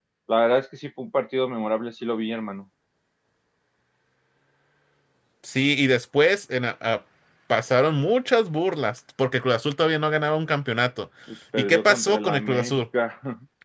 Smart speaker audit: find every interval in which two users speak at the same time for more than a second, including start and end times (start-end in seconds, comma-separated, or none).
11.6-12.8